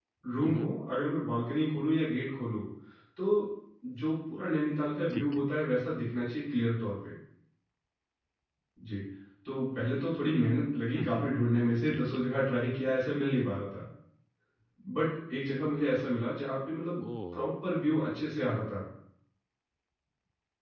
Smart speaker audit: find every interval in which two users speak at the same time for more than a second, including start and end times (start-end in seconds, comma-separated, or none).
none